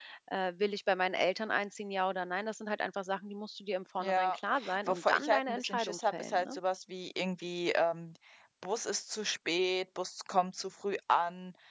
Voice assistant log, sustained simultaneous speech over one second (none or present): present